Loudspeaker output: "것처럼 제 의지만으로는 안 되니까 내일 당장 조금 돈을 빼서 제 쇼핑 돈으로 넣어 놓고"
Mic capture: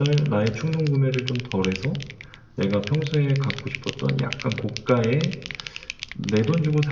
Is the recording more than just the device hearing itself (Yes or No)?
Yes